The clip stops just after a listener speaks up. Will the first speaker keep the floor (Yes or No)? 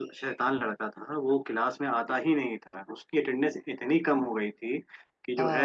Yes